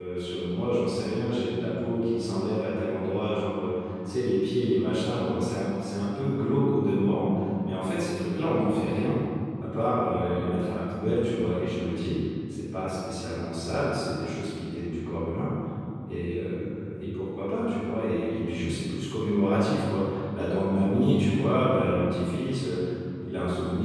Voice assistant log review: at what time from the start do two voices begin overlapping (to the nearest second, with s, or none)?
none